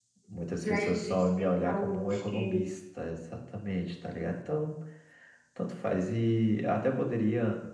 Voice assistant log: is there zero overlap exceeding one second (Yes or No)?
No